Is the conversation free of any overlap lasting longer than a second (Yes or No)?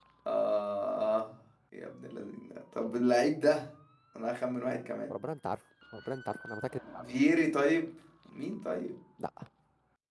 Yes